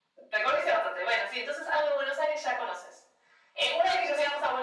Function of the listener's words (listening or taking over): listening